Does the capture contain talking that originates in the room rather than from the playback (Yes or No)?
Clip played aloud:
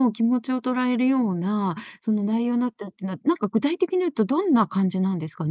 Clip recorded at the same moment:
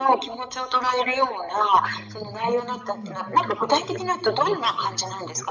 Yes